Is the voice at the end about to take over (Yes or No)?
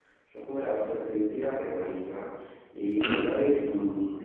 No